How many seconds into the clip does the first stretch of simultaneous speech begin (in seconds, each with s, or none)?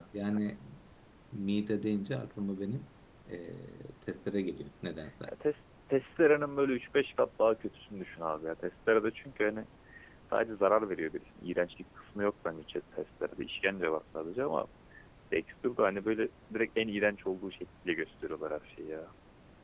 none